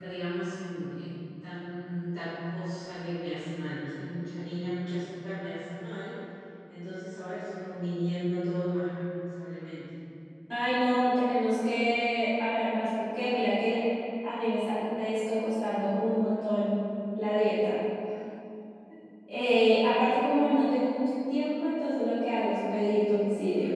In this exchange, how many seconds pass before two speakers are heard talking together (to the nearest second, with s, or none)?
none